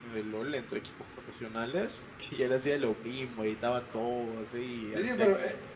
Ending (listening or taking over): taking over